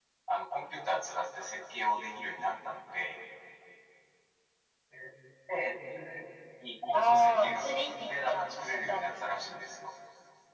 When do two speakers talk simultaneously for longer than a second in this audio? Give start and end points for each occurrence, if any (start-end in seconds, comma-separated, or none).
6.9-9.4